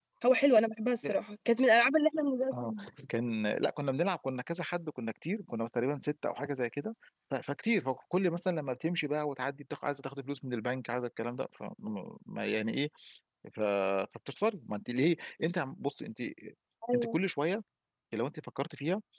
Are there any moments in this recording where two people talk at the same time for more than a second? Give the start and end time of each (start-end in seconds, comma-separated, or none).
none